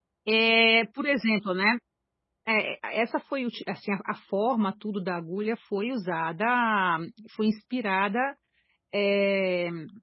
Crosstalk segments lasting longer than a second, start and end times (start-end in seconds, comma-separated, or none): none